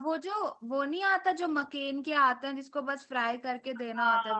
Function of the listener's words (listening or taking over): taking over